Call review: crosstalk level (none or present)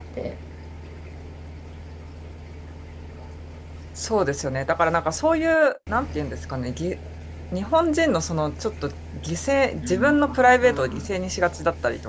present